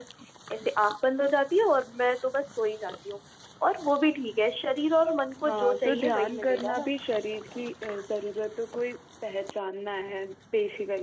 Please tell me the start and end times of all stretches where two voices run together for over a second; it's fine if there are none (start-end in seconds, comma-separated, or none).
5.4-6.9